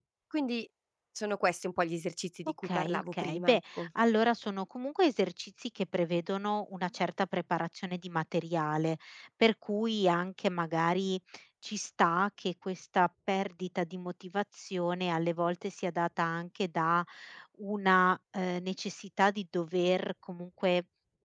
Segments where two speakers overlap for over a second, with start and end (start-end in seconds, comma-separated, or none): 2.6-3.9